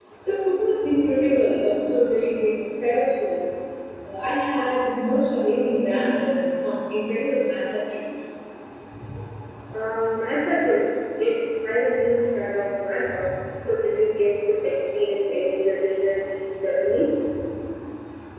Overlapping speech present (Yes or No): No